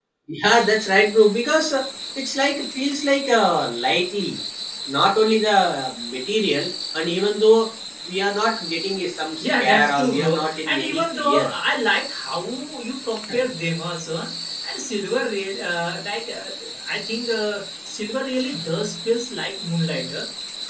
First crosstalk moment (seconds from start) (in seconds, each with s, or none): 9.4 s